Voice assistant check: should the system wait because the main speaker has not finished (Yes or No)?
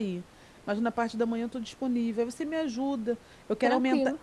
Yes